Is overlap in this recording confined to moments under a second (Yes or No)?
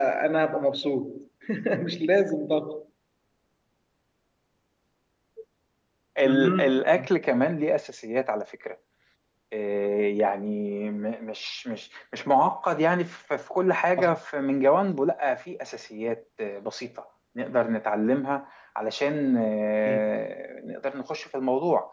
Yes